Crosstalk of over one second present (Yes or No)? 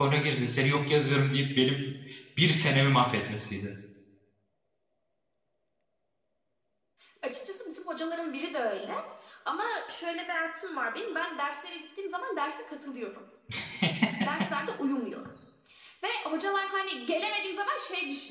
No